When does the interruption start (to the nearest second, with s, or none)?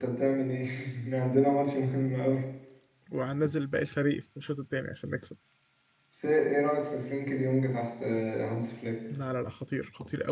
none